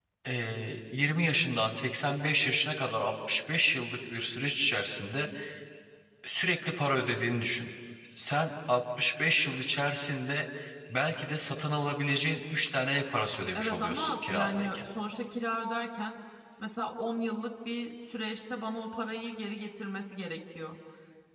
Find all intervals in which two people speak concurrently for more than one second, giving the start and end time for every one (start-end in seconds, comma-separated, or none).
13.5-14.9